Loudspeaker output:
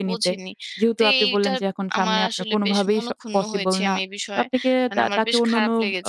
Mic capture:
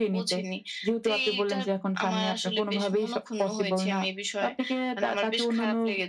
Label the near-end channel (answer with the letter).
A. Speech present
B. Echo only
B